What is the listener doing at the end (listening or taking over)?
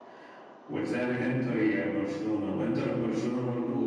listening